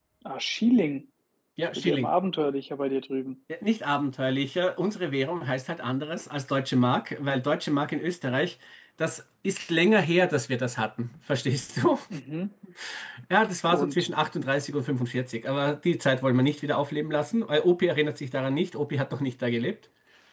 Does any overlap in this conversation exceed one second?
No

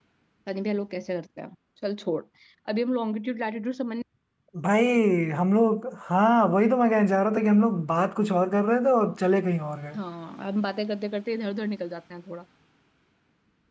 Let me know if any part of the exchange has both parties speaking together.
No

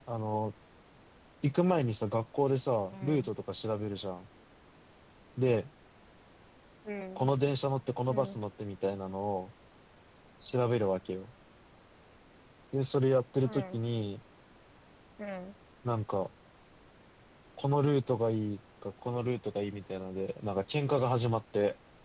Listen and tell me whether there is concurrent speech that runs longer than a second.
No

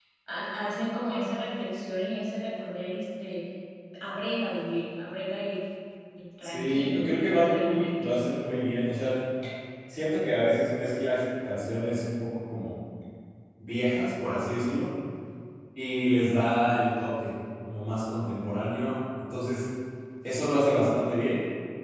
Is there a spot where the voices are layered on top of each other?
Yes, from 6.4 s

